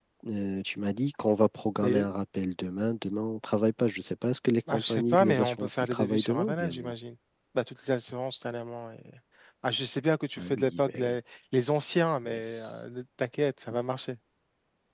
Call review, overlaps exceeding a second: present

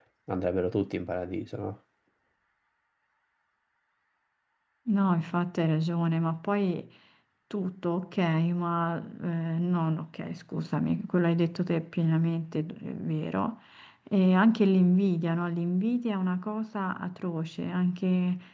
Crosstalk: none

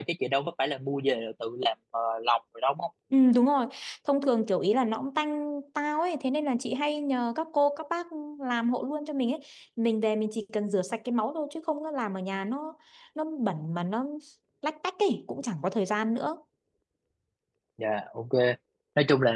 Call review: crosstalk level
none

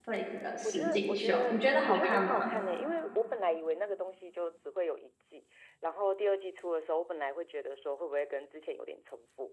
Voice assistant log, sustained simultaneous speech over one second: present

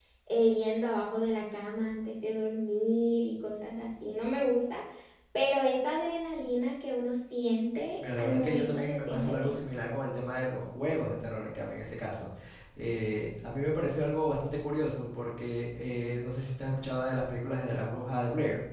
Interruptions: present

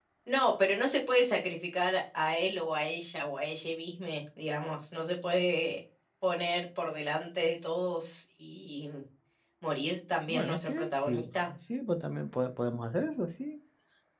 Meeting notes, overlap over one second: present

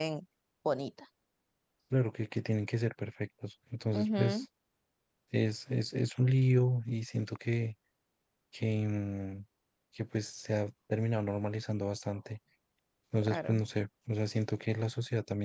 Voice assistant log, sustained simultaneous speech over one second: none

